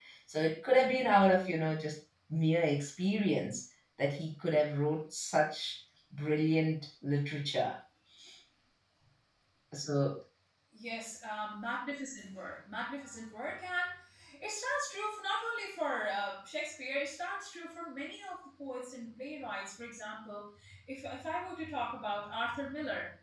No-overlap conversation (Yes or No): Yes